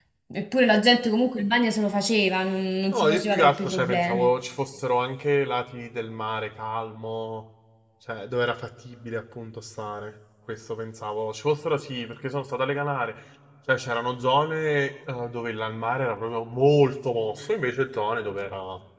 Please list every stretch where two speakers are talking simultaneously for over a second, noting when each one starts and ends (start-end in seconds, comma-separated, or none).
2.9-4.3